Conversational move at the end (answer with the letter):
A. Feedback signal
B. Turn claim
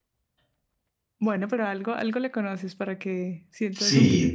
B